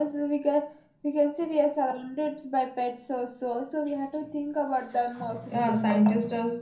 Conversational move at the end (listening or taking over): taking over